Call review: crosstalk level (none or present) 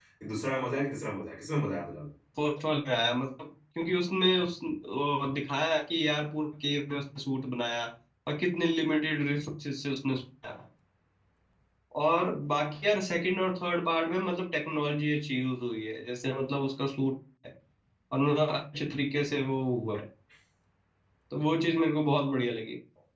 none